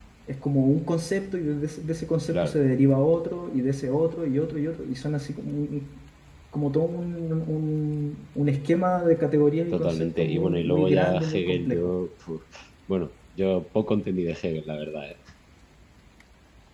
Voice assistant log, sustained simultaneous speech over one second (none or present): present